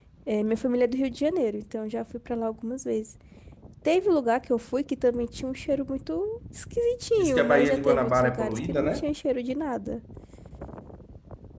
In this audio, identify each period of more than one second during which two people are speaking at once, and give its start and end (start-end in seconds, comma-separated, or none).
7.2-8.9